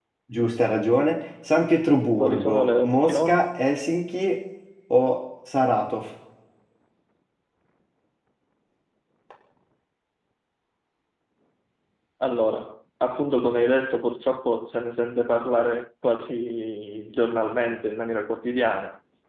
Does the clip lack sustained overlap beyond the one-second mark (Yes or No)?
No